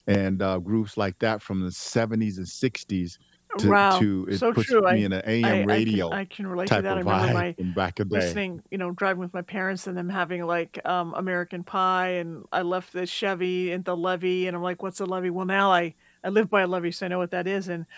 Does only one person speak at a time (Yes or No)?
No